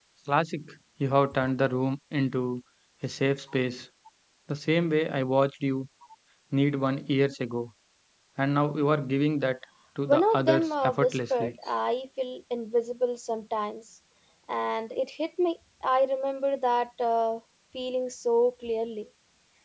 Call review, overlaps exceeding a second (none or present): present